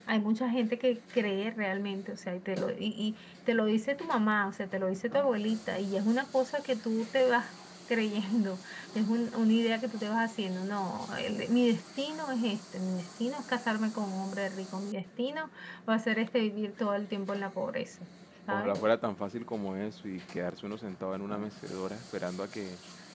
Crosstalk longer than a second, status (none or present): none